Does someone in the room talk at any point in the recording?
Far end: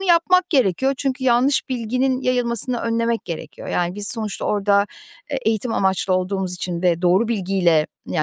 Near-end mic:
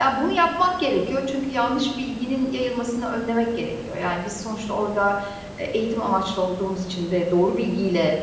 No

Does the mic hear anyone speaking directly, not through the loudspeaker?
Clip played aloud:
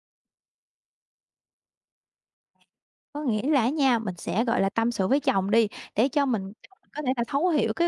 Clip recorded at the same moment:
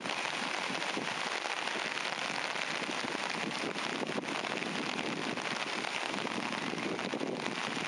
No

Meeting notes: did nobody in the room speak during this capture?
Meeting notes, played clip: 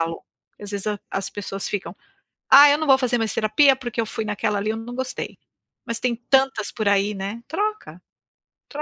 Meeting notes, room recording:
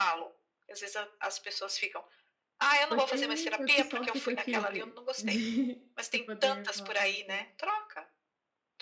No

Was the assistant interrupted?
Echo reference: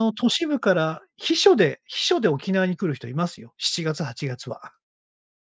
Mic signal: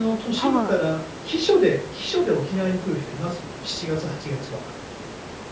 Yes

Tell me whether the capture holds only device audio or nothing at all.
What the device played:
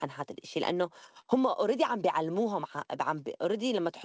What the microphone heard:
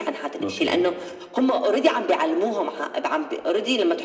No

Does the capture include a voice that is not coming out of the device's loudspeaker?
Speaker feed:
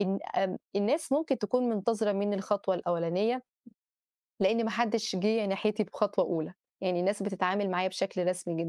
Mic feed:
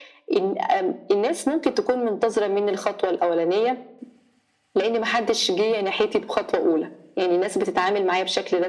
No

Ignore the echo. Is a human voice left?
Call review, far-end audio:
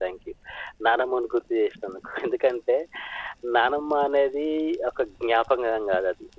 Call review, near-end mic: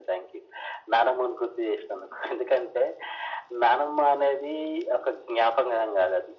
No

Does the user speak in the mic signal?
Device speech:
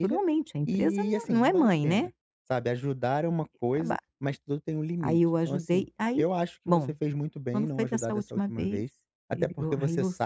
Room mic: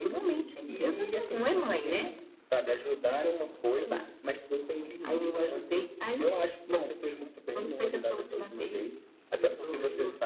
No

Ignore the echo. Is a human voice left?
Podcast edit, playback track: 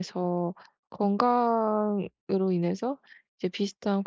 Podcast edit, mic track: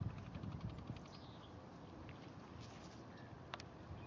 No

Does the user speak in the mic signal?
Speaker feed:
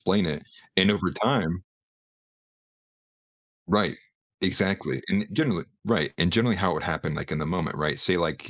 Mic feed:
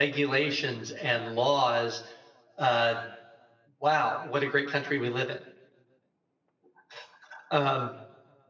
Yes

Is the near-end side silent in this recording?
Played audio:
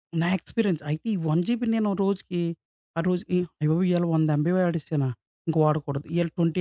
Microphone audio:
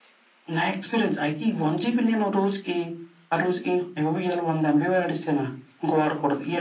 Yes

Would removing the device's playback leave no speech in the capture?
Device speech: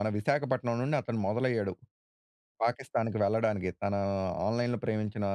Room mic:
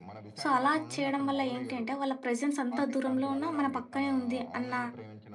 No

